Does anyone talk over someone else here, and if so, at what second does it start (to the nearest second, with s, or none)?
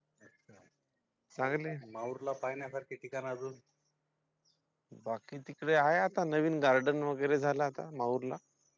none